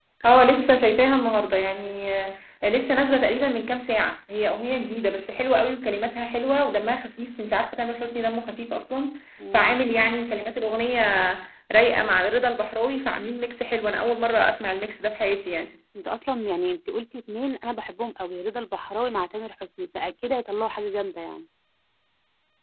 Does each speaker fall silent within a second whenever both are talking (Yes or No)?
Yes